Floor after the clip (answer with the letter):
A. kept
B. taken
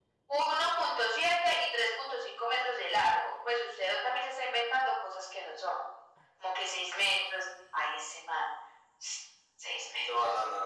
B